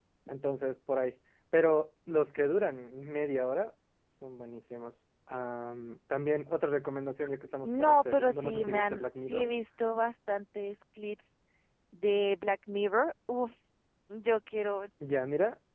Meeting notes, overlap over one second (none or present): present